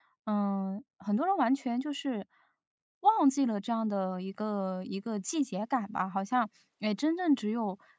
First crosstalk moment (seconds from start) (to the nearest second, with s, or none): none